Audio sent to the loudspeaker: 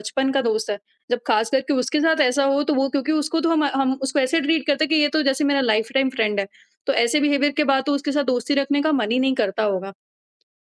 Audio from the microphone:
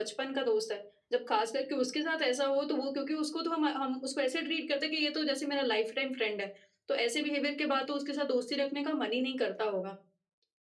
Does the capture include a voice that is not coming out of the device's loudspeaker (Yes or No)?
No